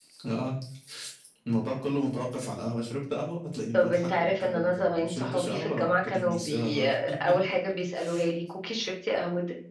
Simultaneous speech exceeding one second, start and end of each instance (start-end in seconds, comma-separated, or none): 3.7-7.0